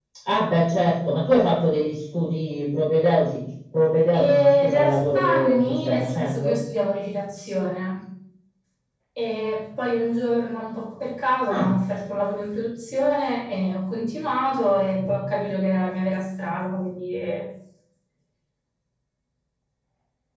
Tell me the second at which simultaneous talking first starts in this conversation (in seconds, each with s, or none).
4.1 s